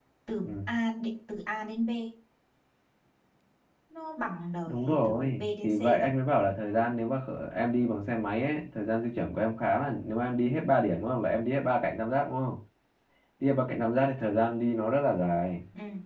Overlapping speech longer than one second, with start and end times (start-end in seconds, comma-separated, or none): 4.7-6.2